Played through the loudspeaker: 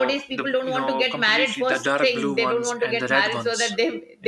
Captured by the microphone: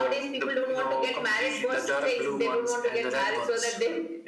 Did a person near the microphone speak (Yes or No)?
No